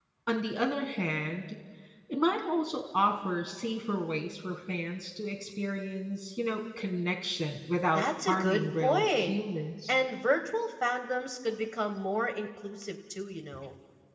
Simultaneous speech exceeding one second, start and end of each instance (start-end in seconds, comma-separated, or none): 8.0-9.3